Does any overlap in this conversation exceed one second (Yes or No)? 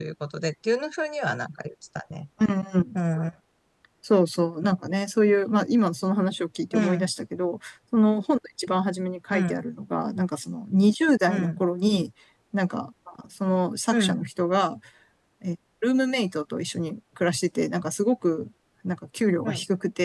No